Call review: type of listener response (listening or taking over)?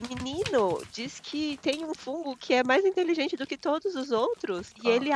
listening